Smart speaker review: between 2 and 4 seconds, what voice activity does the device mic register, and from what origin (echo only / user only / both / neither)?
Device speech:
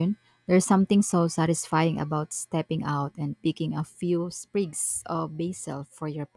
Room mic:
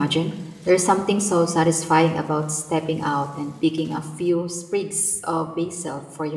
echo only